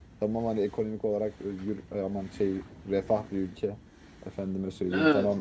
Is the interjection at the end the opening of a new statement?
No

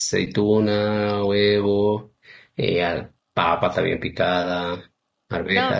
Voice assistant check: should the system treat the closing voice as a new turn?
Yes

